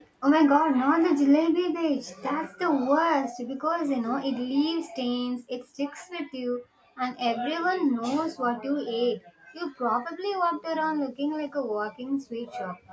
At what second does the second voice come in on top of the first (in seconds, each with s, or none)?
none